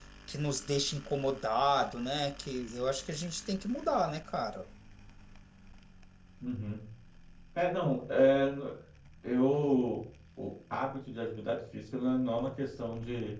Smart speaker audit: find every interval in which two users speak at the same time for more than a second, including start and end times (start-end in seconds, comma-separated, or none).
none